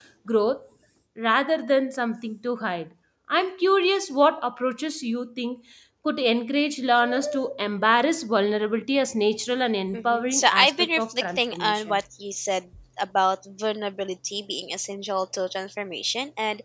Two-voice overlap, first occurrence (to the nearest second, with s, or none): 10 s